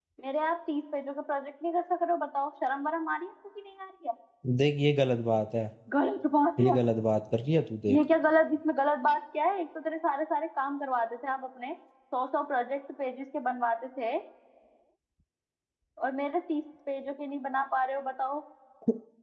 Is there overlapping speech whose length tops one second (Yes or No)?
No